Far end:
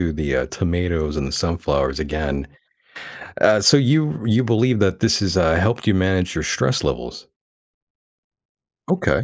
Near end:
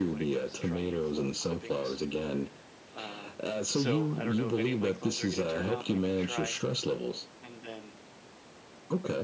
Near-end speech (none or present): present